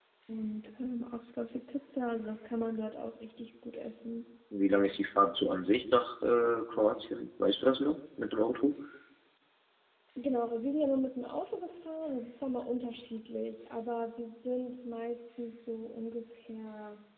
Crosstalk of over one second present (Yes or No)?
No